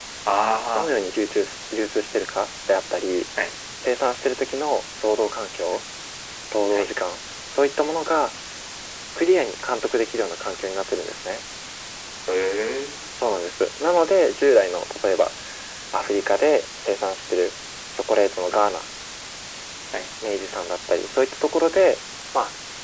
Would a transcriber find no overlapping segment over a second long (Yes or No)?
Yes